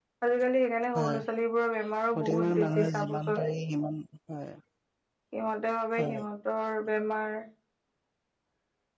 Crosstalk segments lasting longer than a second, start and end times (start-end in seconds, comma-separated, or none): 2.1-3.5